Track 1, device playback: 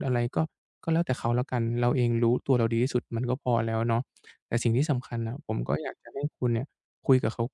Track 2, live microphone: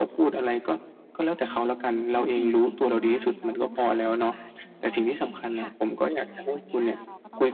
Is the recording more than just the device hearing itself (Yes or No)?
Yes